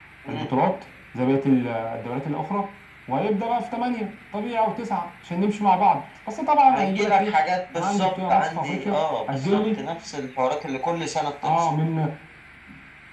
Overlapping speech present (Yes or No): Yes